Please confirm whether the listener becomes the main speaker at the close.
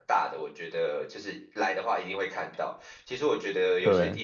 No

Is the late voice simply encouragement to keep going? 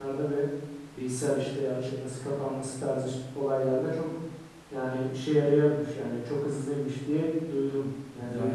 No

